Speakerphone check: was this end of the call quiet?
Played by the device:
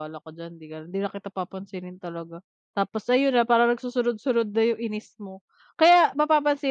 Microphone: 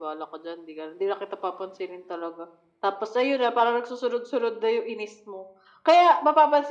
Yes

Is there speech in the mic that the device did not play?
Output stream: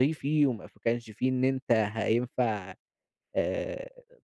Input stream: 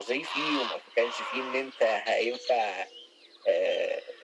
No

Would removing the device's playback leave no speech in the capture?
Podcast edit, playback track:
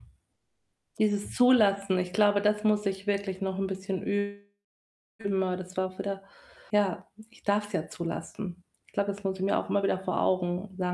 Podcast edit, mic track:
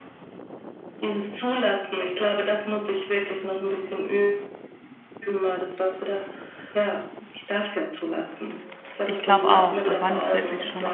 No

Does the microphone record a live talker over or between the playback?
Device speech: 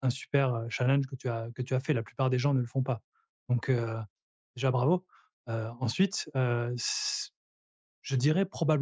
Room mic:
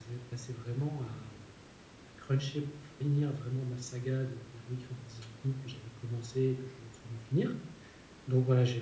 Yes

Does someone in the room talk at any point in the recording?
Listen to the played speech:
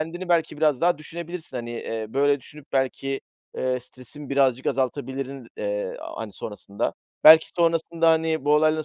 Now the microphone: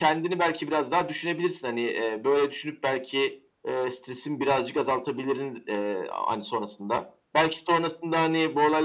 No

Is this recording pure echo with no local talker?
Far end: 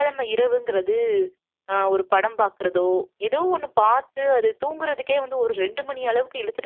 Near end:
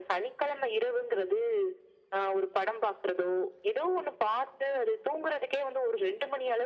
Yes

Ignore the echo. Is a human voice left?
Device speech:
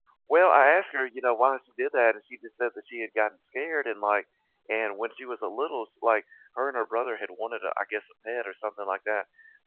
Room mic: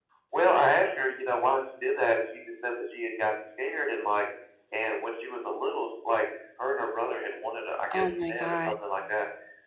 Yes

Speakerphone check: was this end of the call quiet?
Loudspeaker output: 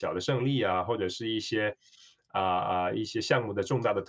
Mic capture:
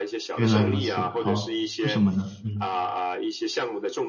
No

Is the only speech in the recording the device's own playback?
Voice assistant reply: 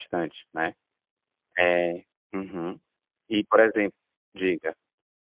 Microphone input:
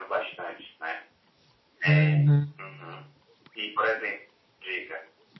No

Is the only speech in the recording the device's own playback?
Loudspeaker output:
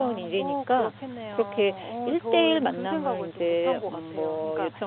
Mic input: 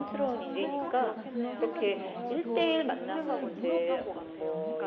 No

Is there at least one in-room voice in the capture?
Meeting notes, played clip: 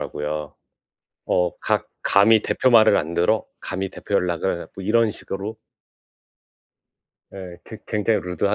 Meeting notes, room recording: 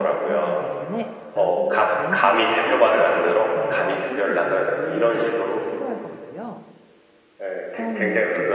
Yes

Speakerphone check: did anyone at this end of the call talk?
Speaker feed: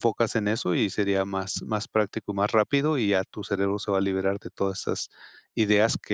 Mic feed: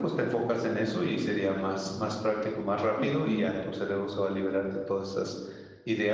Yes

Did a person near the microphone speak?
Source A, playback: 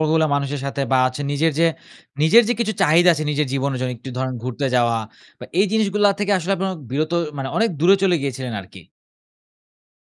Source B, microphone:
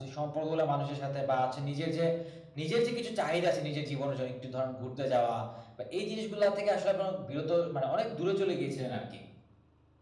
No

